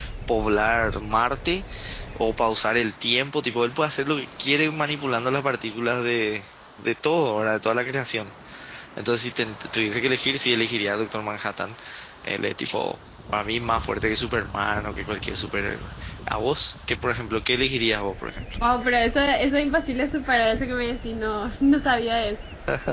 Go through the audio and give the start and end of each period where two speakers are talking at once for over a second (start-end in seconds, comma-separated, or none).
none